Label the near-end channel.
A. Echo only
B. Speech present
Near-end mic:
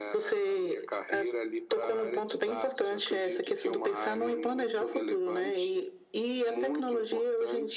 A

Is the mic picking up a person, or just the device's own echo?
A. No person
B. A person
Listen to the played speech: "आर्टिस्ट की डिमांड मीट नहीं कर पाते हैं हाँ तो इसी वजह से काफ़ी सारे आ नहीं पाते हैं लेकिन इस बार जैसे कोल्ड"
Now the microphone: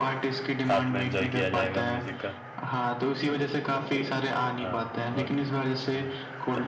B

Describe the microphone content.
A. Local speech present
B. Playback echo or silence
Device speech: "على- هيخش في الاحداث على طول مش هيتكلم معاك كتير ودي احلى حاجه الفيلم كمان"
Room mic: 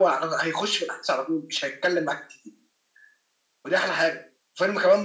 B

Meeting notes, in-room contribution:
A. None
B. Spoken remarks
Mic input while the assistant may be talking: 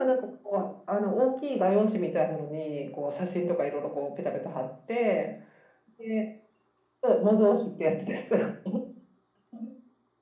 A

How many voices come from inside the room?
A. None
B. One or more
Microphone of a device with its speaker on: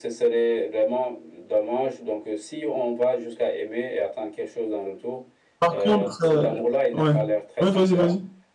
B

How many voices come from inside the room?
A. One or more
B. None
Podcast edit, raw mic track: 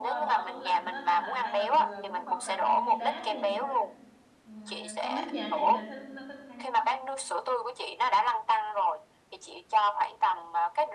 A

